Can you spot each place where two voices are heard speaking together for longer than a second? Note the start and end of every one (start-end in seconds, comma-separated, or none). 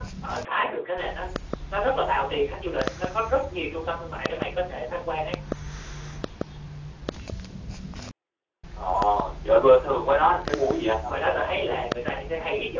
none